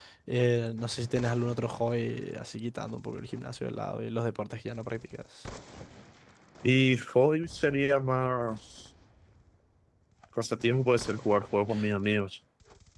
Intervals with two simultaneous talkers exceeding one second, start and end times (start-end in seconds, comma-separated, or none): none